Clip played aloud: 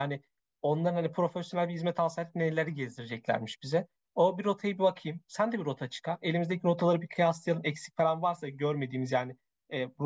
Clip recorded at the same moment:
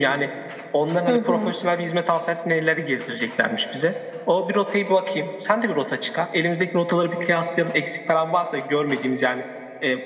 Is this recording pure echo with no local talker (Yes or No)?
No